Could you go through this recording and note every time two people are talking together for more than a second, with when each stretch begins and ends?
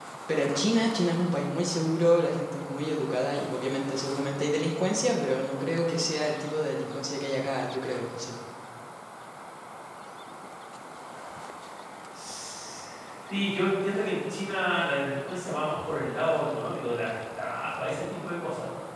none

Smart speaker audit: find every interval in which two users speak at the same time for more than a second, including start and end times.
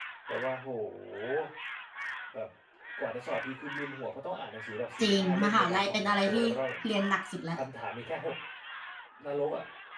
5.0-6.4

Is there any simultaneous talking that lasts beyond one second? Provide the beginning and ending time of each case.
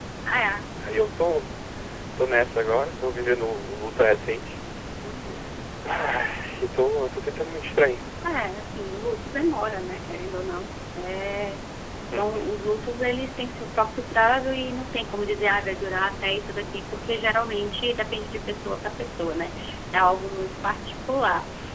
none

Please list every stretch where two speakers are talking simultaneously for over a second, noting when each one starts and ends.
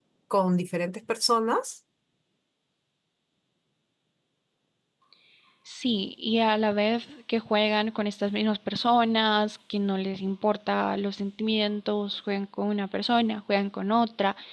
none

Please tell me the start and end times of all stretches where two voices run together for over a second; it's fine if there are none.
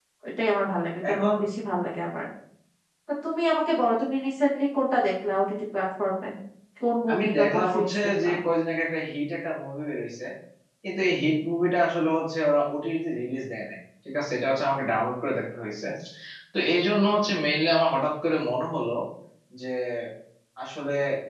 7.1-8.3

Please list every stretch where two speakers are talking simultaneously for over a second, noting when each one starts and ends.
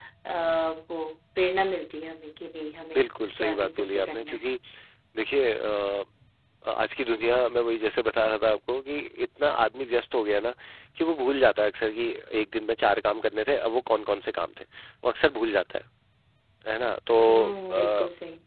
3.0-4.5

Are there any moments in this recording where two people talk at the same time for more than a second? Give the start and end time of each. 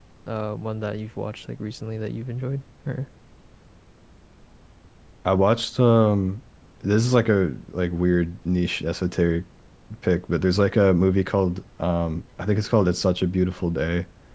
none

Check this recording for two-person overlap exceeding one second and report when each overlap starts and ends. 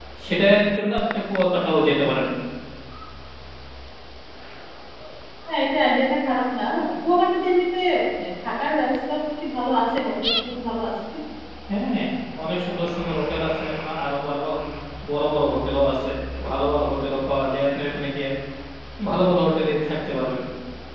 none

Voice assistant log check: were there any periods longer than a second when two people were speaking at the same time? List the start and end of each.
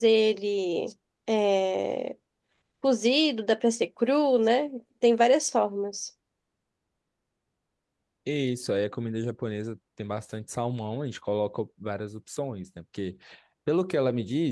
none

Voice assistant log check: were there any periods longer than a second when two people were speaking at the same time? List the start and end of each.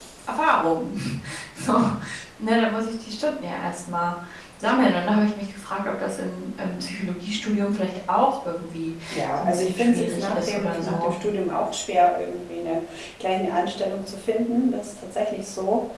9.4-11.1

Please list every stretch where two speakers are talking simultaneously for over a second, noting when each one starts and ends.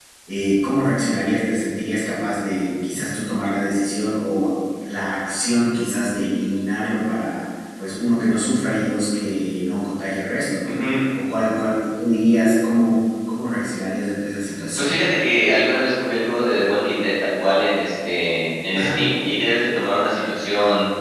none

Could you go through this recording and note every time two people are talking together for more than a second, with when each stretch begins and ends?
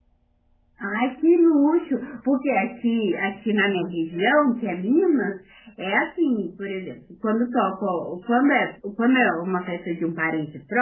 none

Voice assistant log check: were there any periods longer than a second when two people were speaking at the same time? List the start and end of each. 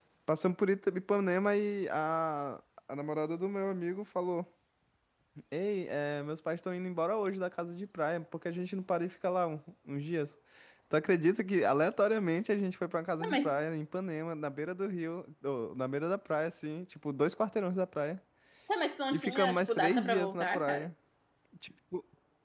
19.1-20.9

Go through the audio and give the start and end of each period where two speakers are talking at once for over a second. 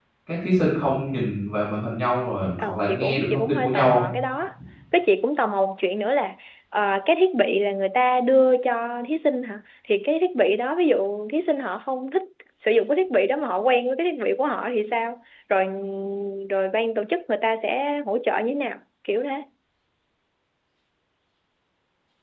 2.6-4.0

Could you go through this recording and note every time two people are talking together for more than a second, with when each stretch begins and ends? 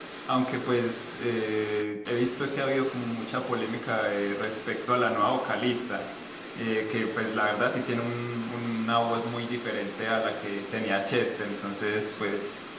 none

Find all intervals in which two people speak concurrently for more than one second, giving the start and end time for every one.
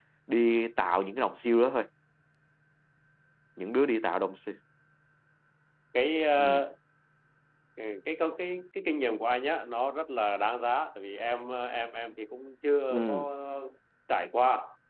none

